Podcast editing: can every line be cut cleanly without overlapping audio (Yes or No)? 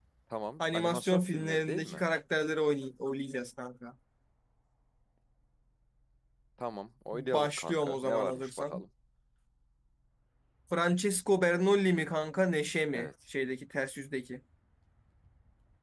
No